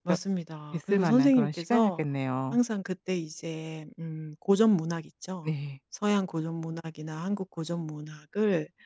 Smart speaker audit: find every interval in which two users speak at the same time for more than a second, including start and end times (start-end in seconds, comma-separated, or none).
0.7-2.0